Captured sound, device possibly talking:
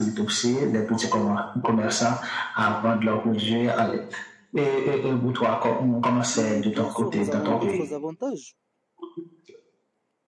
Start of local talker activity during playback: 6.3 s

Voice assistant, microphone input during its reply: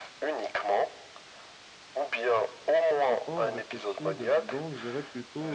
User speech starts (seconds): 3.1 s

